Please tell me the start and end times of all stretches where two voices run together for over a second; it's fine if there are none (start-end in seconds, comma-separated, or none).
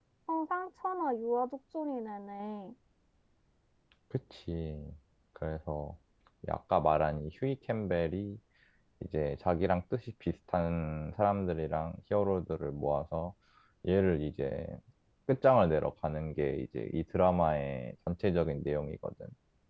none